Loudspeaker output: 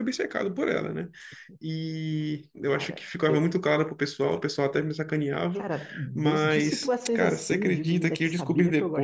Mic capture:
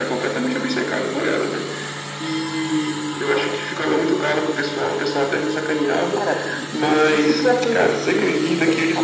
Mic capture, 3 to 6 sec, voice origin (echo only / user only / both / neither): echo only